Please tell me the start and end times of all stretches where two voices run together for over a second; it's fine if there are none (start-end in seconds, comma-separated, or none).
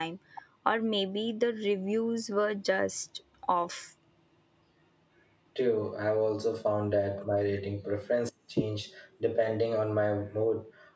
none